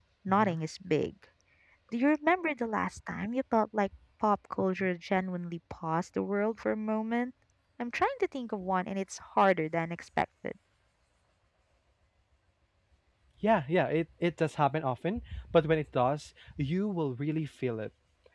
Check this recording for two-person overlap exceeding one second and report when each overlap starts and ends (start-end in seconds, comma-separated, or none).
none